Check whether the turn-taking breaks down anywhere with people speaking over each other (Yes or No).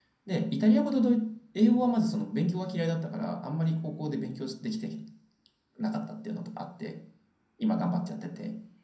No